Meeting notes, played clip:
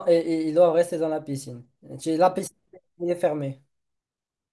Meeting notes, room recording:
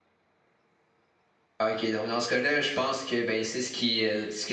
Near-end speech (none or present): present